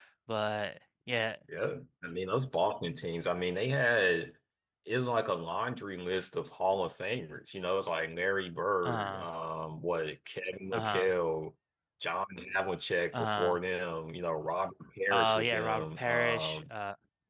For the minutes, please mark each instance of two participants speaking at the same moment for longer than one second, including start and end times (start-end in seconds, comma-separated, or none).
15.1-16.6